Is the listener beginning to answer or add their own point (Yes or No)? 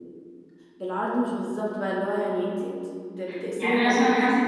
Yes